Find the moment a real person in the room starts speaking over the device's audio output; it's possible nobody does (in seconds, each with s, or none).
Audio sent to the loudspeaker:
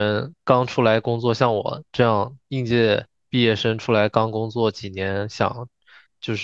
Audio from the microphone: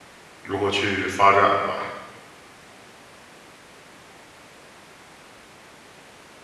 0.4 s